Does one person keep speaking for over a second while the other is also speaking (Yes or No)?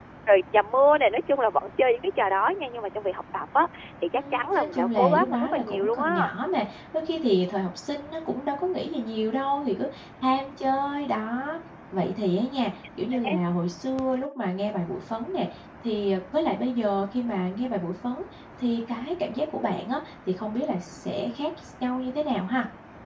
Yes